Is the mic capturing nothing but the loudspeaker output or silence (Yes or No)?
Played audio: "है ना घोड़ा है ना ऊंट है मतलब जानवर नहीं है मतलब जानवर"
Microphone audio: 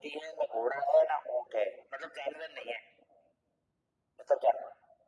Yes